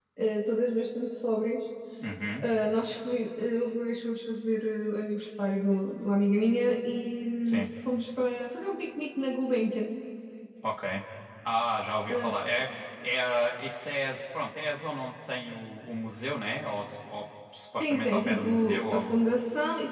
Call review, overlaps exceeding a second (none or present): present